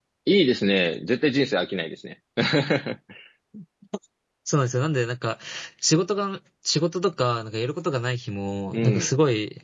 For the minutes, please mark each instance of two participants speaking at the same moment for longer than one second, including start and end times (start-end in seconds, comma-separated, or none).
none